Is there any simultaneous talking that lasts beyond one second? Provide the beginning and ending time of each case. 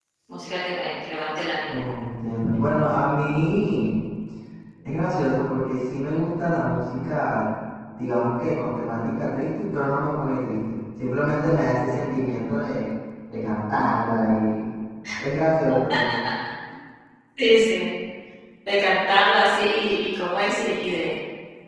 none

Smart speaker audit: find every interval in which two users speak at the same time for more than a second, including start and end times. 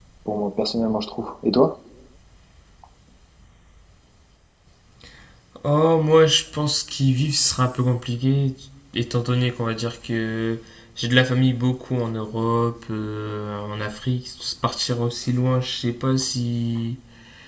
none

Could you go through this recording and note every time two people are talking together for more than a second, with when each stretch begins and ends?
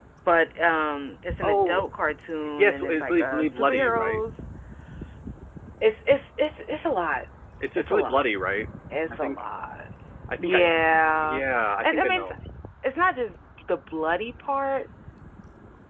2.4-4.2

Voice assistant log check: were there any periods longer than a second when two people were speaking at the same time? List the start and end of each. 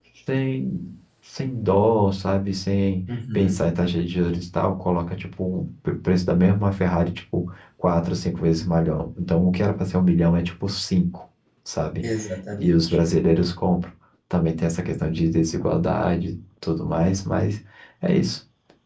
none

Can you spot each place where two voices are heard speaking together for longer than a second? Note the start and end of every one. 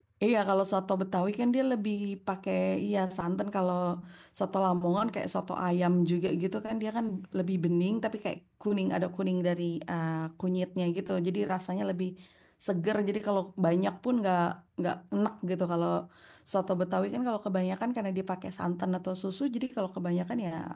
none

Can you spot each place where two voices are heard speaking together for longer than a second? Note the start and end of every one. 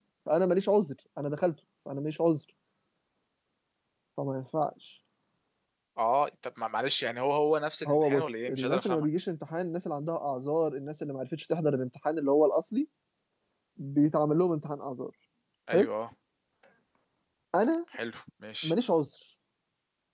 7.8-9.1

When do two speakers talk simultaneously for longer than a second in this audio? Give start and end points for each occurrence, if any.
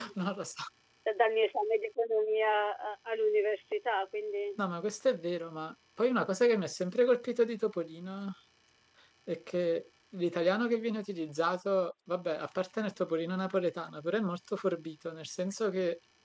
none

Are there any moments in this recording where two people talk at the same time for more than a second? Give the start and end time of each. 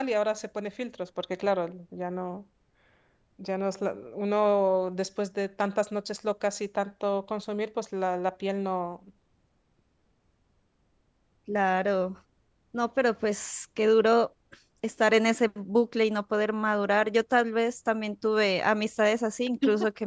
none

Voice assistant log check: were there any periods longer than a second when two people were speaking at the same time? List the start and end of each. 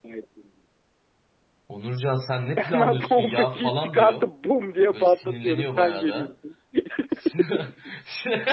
2.6-4.3, 4.9-6.3

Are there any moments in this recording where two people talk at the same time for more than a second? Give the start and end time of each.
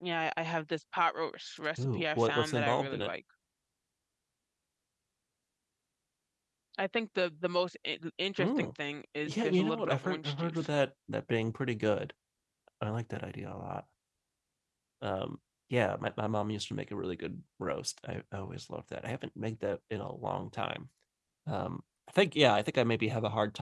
1.8-3.1, 9.3-10.7

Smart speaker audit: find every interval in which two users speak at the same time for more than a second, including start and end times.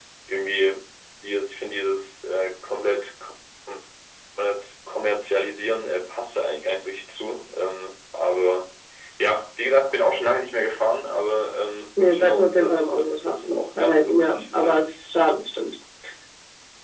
12.0-14.8

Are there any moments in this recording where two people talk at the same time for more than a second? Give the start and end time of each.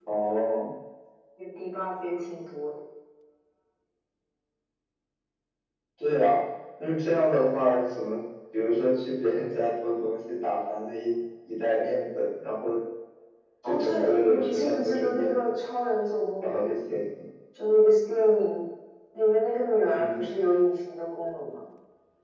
13.6-15.3

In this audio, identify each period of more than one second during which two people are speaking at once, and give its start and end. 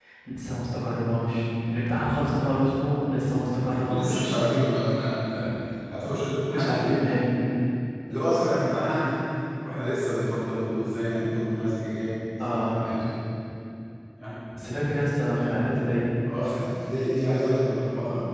none

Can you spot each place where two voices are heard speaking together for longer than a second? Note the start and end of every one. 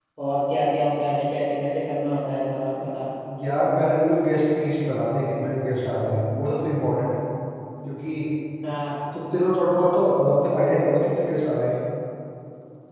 none

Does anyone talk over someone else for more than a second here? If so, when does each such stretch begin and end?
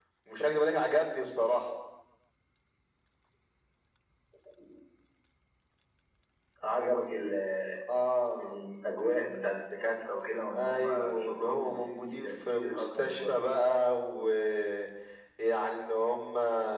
10.5-13.4

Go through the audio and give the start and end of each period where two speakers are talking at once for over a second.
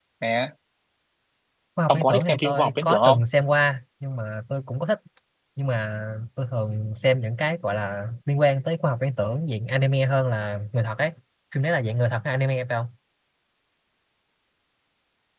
1.9-3.2

